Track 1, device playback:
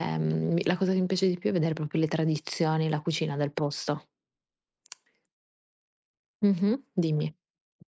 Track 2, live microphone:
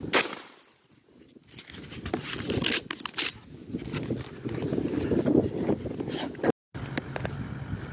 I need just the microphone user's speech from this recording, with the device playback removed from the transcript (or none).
none